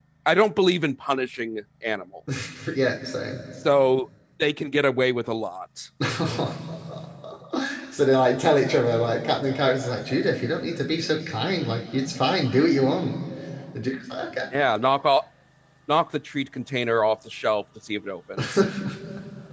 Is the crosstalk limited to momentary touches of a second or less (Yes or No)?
Yes